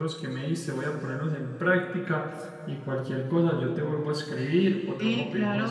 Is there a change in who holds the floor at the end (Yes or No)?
Yes